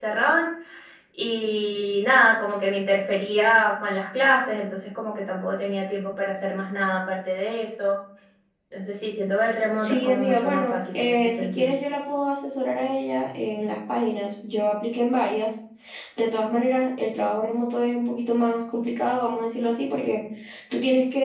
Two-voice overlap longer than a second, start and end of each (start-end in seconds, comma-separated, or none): 9.8-11.7